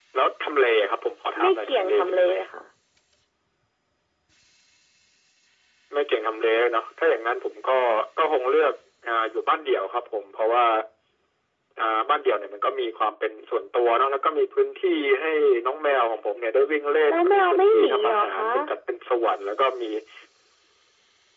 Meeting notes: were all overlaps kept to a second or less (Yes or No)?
No